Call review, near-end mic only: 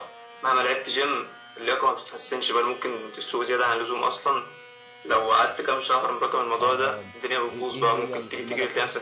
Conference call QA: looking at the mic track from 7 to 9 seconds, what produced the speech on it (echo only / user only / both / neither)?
both